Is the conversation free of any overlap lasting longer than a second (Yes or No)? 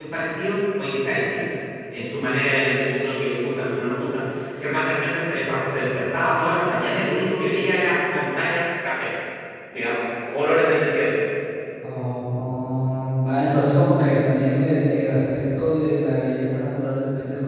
Yes